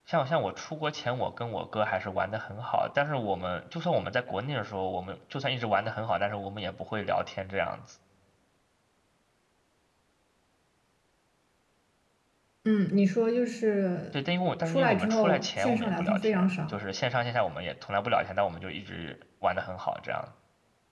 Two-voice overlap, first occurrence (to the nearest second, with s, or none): 15 s